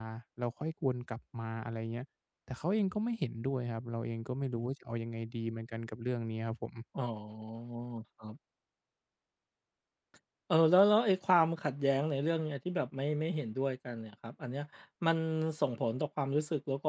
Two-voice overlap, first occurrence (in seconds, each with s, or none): none